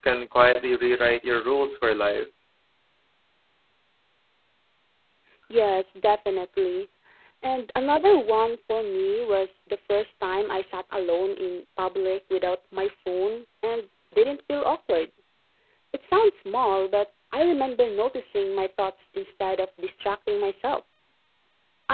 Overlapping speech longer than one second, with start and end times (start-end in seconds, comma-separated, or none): none